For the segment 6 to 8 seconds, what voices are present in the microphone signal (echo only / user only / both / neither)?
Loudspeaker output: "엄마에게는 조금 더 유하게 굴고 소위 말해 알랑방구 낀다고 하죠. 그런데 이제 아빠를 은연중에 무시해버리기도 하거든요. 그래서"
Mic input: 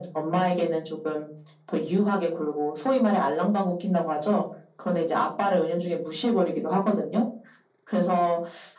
echo only